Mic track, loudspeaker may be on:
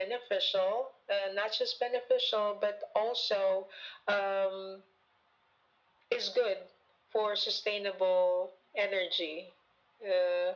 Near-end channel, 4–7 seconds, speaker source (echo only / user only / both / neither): echo only